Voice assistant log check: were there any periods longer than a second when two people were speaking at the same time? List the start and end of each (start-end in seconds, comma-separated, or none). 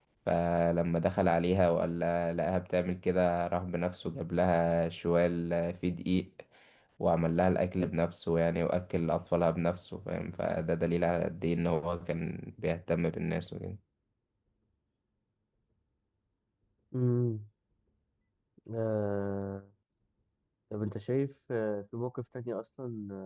none